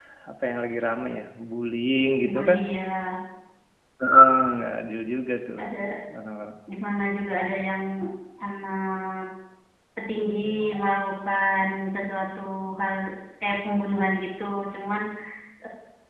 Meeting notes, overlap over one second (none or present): none